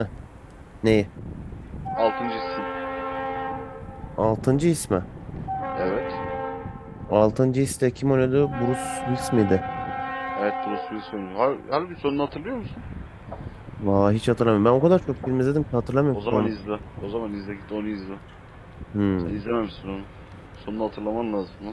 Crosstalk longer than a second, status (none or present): none